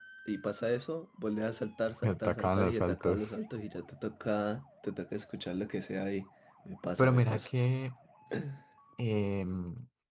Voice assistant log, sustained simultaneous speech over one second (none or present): present